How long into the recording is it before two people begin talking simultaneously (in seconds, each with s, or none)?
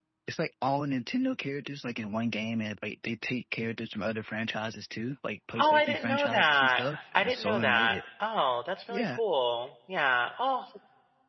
5.6 s